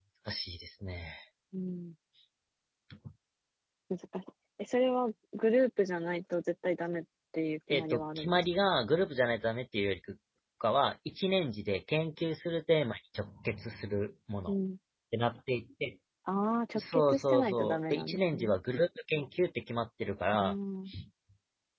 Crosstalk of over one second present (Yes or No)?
Yes